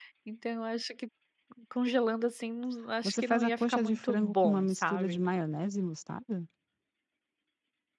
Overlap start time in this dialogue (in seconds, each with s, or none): 3.0 s